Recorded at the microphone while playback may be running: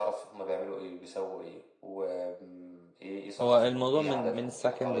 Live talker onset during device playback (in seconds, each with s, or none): 3.4 s